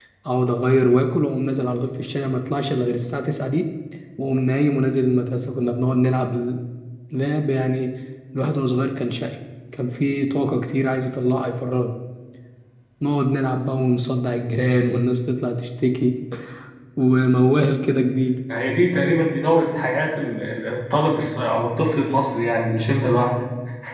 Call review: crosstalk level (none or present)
none